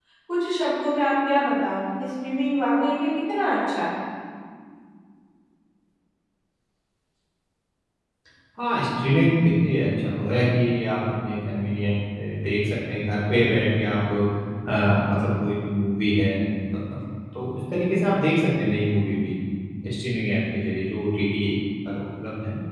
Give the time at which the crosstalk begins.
none

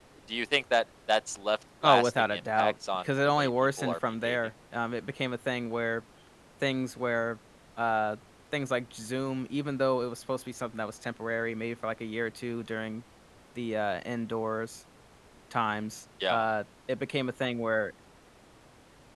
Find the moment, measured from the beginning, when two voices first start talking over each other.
1.8 s

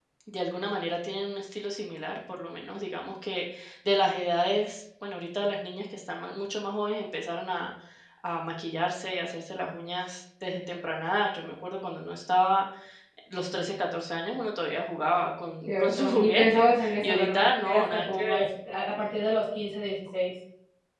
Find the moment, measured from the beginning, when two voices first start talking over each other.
15.7 s

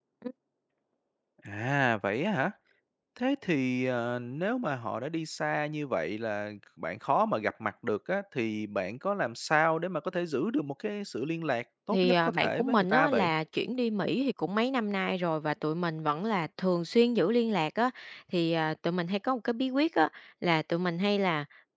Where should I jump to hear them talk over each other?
11.9 s

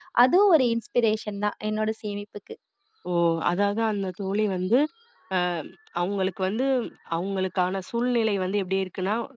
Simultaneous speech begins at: none

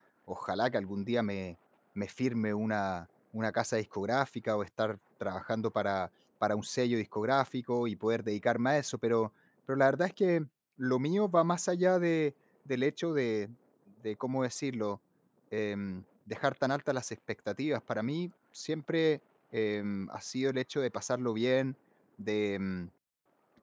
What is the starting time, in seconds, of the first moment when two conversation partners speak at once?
none

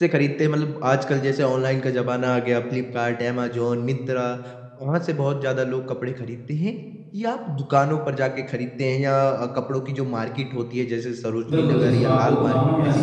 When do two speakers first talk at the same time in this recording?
11.5 s

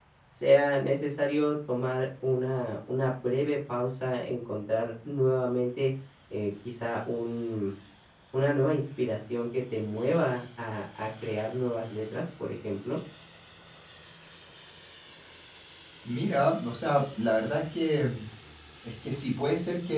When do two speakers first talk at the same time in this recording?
none

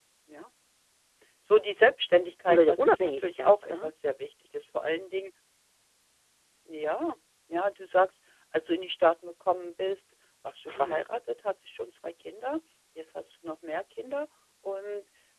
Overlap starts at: 2.5 s

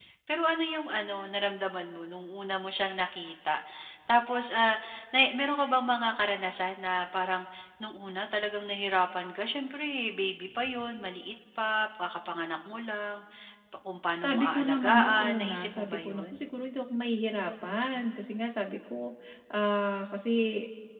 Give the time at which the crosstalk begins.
14.2 s

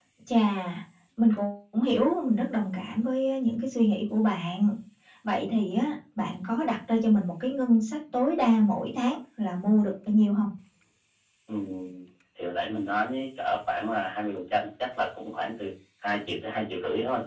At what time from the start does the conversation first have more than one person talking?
none

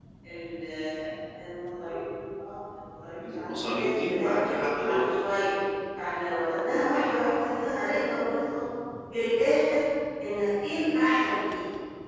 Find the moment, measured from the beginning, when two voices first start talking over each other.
3.3 s

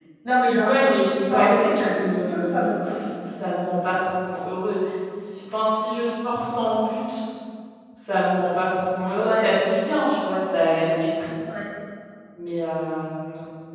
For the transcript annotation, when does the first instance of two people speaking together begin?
0.6 s

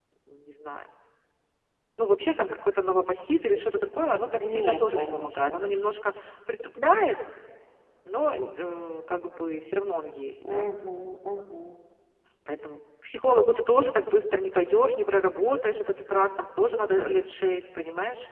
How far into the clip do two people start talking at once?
4.4 s

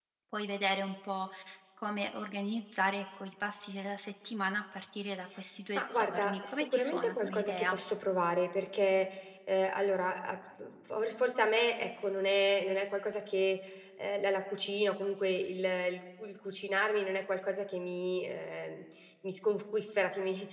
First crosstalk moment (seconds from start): 5.8 s

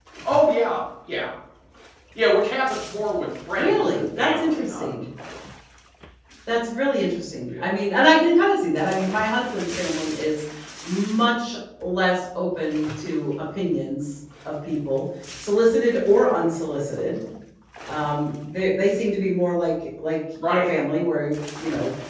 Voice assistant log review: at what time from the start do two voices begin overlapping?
3.6 s

